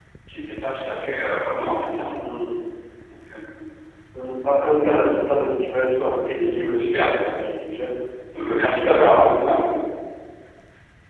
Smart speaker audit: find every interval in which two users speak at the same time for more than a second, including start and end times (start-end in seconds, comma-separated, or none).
8.3-9.6